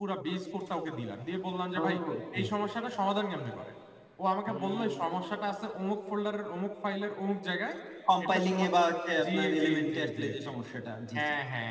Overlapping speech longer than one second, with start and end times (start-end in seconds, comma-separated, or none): 9.2-10.5